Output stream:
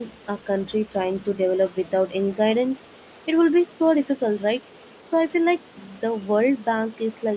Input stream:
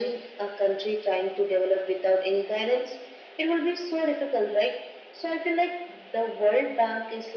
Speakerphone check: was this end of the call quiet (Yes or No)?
Yes